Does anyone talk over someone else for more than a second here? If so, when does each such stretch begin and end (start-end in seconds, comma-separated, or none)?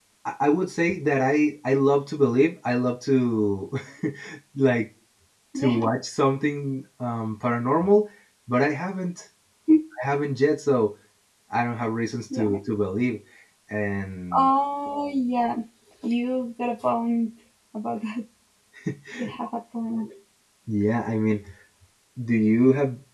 none